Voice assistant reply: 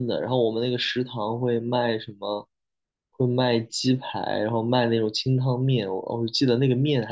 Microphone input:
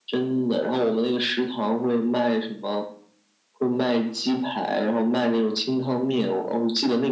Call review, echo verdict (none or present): present